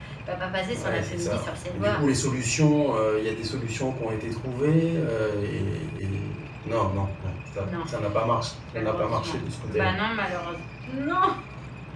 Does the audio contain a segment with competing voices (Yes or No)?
Yes